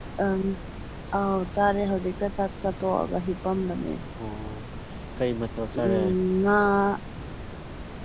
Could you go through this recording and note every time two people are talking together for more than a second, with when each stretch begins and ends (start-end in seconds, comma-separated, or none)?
none